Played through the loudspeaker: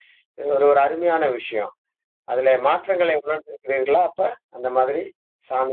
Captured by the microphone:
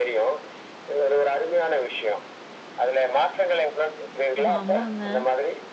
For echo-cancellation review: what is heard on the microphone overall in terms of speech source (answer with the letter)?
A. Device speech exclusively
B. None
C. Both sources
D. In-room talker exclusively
C